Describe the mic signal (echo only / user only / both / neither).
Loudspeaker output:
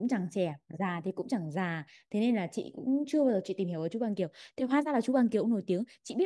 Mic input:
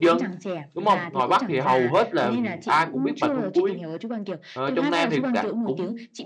both